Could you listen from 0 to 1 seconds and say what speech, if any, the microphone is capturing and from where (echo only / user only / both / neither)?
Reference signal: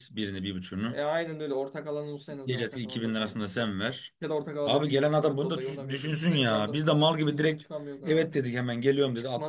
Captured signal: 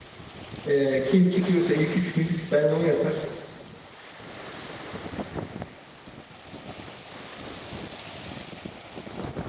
user only